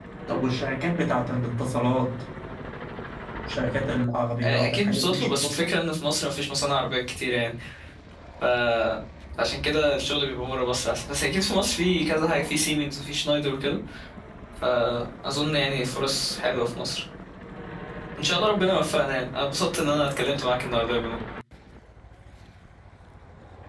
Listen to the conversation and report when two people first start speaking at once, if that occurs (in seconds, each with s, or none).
4.4 s